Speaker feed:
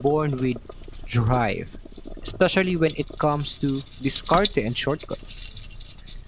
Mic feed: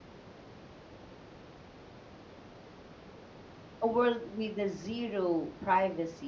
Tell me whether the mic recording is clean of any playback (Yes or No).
Yes